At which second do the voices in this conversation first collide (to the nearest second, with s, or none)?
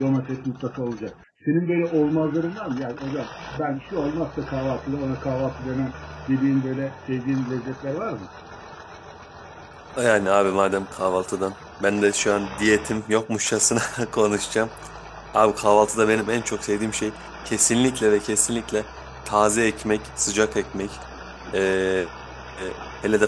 none